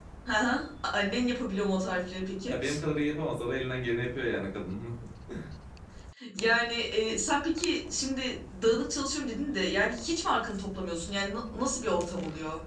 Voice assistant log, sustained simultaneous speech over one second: none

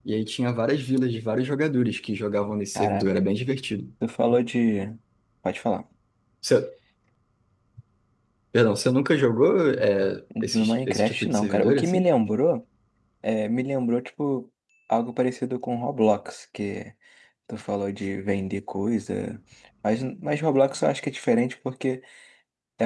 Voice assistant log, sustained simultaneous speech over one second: present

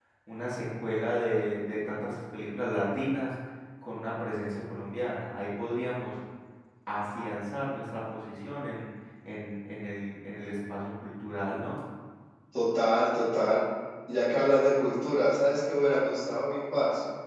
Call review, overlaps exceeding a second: none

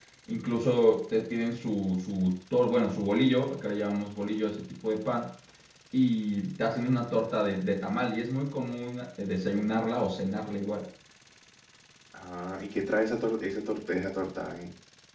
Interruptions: none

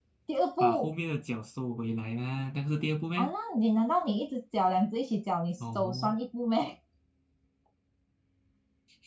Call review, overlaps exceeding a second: none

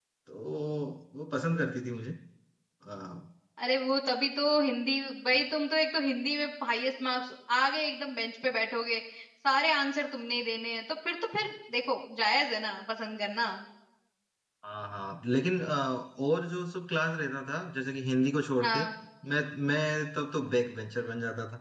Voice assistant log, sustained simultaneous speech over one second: none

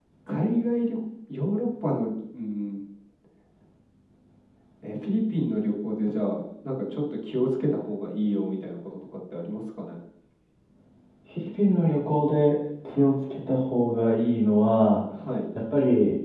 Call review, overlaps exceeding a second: none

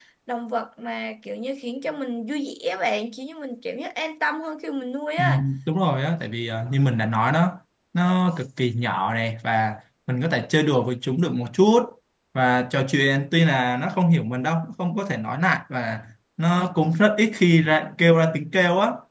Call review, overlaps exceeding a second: none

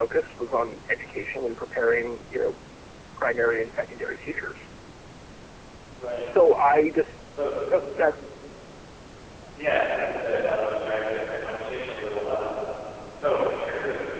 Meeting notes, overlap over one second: none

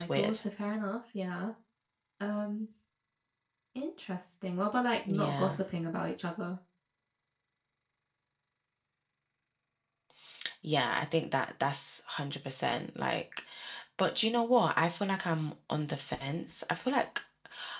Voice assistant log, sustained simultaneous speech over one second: none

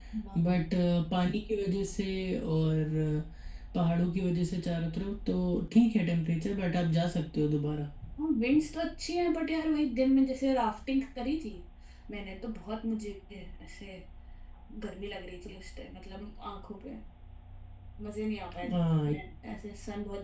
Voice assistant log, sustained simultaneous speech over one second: none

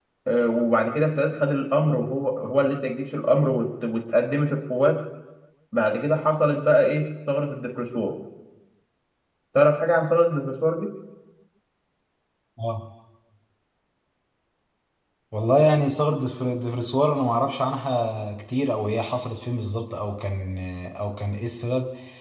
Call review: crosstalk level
none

